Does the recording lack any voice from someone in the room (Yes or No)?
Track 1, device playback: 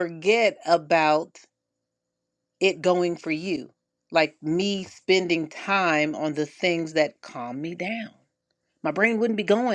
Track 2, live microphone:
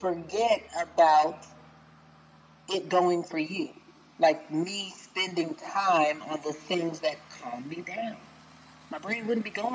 Yes